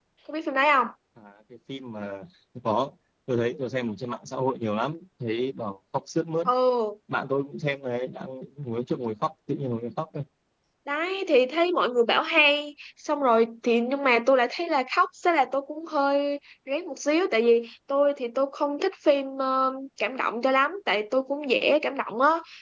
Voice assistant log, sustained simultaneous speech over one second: none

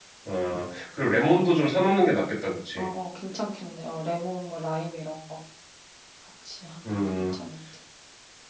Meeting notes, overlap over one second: none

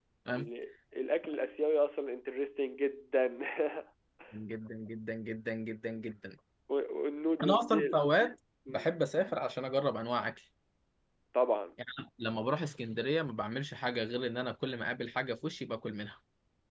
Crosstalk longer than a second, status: none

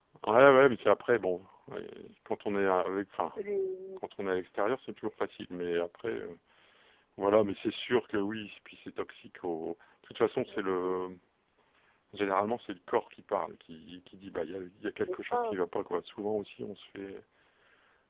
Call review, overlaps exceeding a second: none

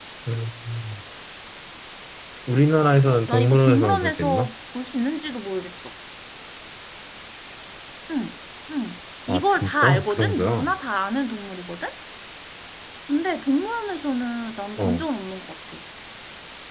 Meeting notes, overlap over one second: present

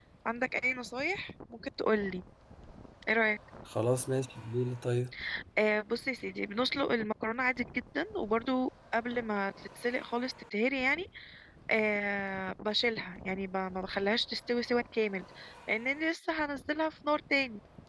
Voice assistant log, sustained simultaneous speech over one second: none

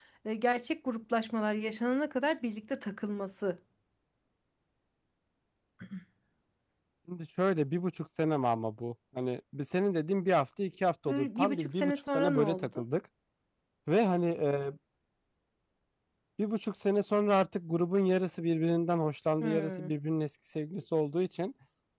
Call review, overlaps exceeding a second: present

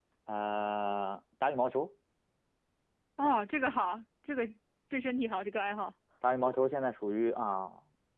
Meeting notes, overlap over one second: none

